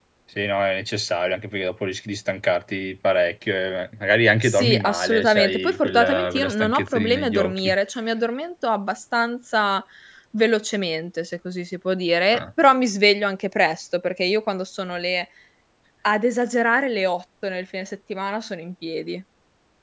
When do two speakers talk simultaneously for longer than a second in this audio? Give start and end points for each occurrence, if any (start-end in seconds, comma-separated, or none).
4.4-7.7